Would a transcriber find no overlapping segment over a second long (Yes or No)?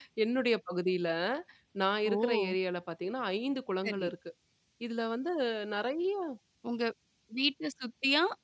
Yes